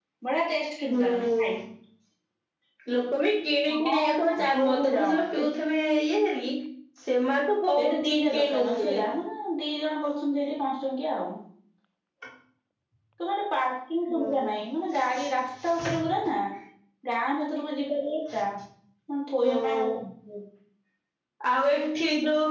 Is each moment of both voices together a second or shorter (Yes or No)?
No